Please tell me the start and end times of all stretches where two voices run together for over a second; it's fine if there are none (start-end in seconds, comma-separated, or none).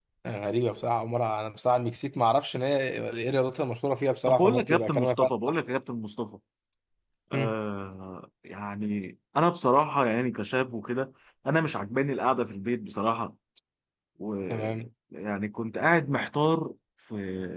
4.3-5.6